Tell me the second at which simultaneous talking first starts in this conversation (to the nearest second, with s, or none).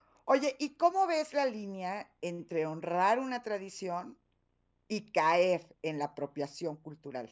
none